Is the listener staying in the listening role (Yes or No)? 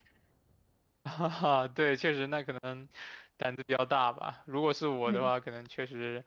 Yes